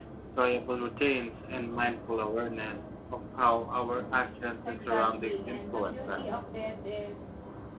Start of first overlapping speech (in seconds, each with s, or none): 4.6 s